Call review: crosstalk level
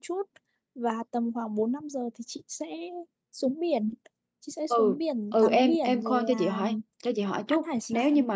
present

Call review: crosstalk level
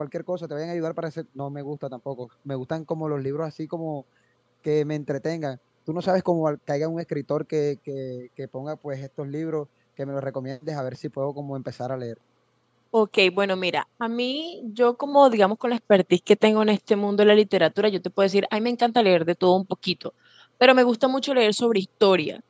none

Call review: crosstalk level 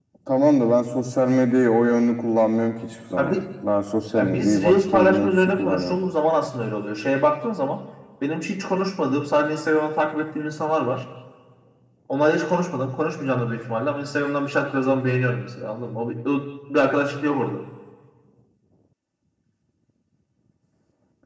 present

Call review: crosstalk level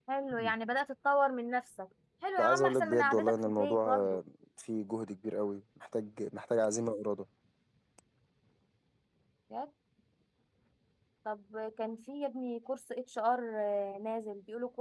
present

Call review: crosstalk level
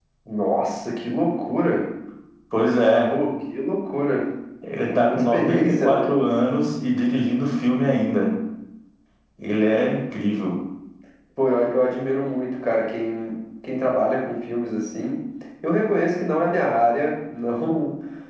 present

